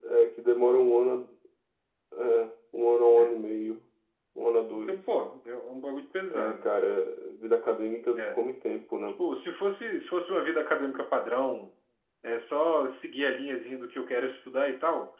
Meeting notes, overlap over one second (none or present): none